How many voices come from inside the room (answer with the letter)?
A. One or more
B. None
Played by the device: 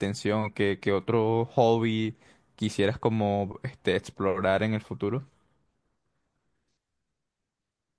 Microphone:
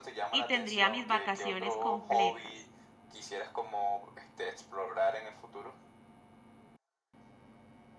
A